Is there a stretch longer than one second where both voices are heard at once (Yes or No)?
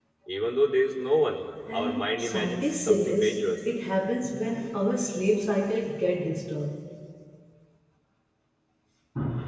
Yes